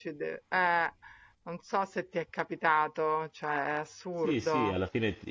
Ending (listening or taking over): taking over